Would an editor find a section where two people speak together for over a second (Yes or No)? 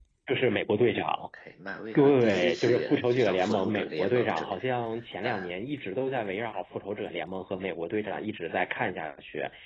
Yes